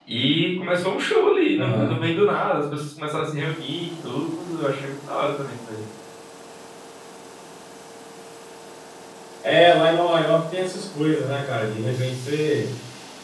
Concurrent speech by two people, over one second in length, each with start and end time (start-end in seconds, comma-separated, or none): none